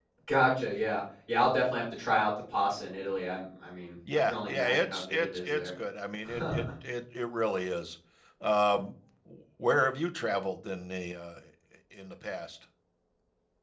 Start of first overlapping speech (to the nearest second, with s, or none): 4 s